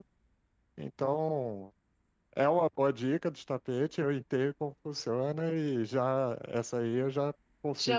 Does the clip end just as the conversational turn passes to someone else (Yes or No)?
Yes